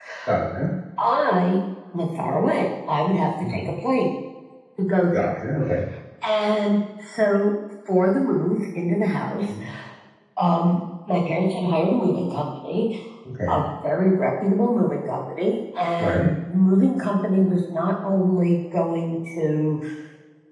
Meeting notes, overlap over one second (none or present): none